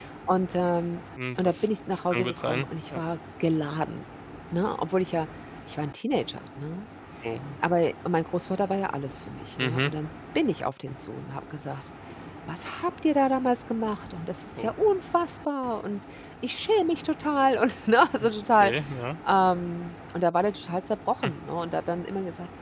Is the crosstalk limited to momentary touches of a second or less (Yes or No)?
No